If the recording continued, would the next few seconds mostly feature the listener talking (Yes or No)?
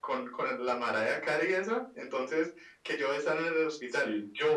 No